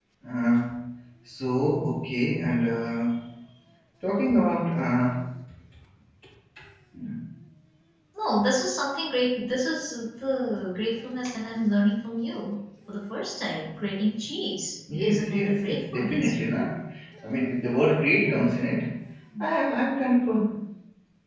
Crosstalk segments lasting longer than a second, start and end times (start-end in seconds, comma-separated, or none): 15.0-16.3